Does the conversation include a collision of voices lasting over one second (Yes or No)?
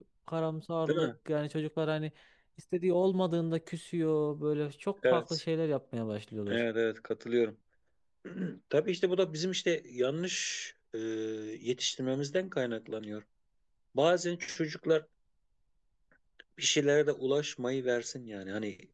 No